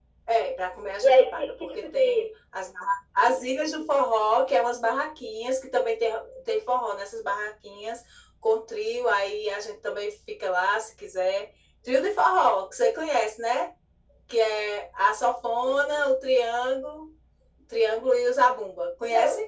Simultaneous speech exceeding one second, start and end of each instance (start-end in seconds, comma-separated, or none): 1.0-2.3